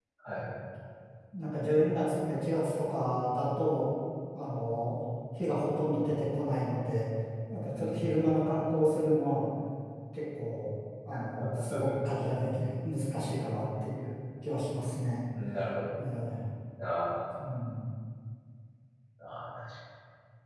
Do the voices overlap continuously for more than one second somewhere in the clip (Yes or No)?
No